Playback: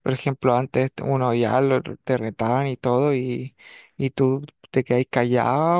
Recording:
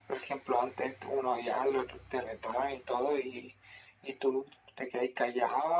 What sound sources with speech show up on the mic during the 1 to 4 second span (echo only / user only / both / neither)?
echo only